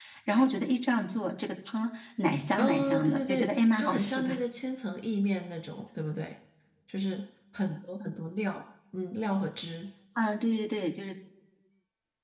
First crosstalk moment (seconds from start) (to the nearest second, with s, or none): 3 s